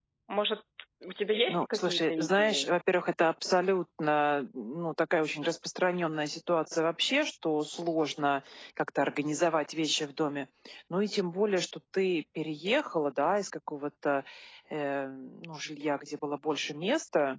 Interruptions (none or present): present